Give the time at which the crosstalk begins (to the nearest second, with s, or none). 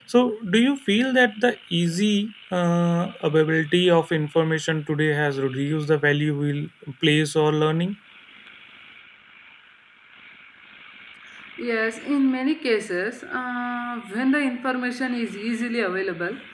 none